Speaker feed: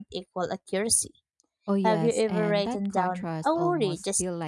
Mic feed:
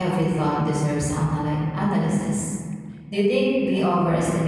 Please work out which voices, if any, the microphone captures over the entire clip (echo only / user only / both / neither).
user only